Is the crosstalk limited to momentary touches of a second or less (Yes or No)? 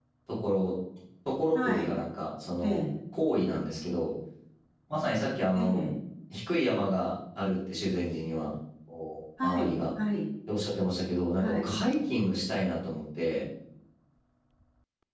Yes